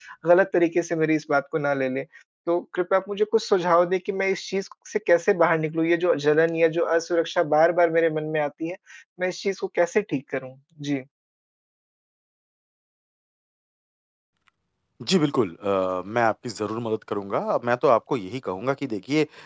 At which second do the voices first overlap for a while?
none

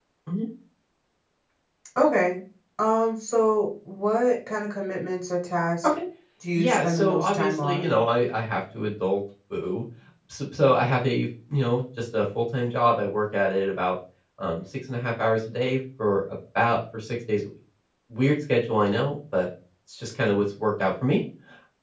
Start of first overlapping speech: 6.5 s

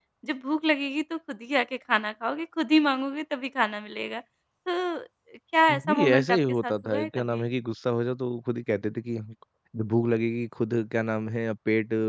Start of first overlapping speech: 5.7 s

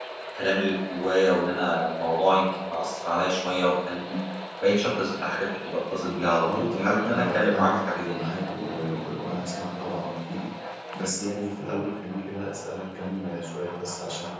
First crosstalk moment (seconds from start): 6.5 s

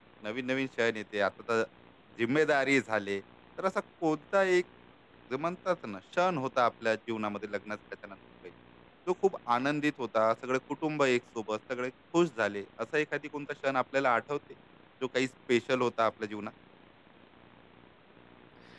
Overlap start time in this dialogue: none

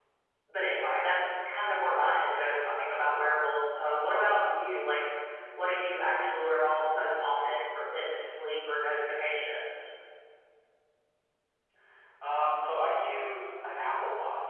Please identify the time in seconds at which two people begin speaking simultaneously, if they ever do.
none

